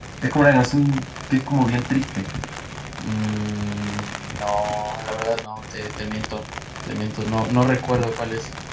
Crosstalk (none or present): none